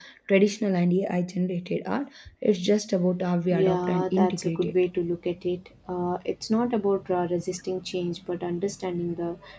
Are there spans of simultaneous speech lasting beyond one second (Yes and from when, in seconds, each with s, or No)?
Yes, from 3.5 s